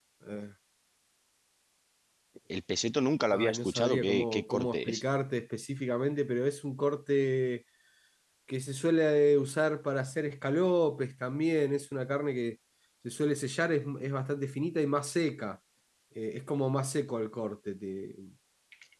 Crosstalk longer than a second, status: present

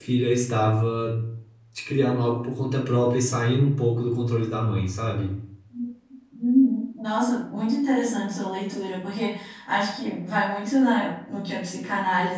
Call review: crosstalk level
none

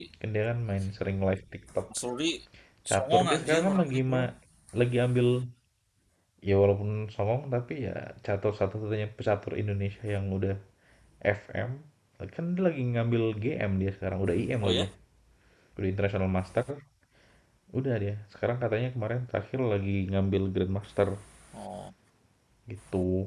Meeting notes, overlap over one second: present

